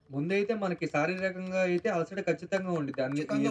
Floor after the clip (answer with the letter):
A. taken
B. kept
B